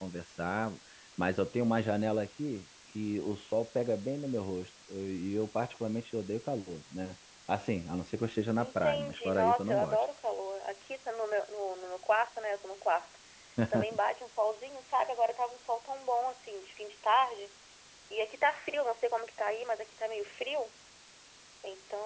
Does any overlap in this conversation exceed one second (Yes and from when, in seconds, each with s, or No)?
Yes, from 8.6 s